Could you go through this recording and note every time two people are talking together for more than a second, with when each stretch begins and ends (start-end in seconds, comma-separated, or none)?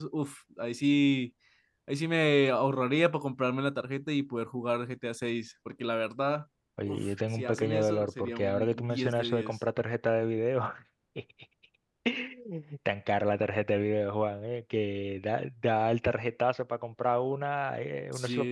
6.9-9.6